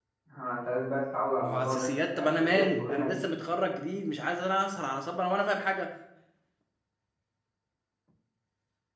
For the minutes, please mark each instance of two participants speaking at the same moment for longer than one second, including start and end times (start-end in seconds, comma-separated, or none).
1.4-3.2